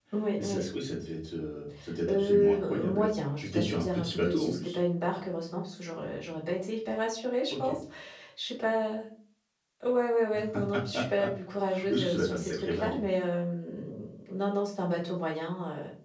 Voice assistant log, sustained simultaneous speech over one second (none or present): present